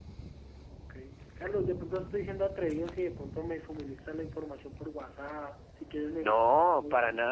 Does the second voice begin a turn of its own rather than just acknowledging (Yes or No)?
Yes